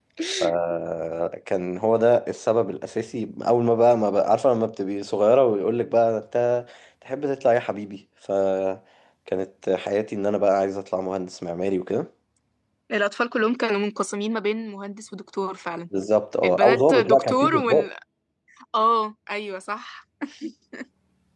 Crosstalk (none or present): present